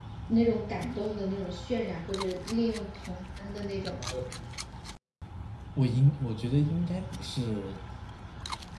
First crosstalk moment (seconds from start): none

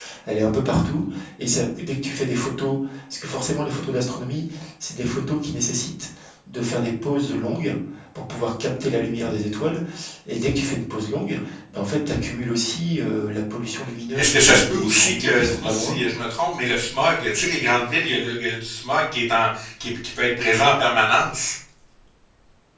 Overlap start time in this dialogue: 14 s

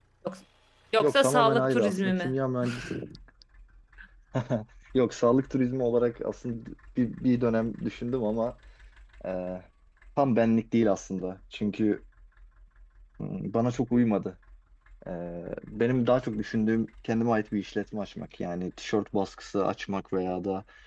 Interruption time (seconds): 1 s

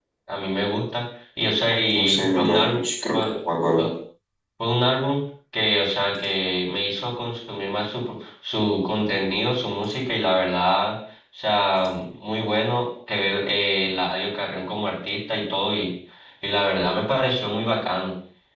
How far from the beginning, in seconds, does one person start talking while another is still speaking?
2 s

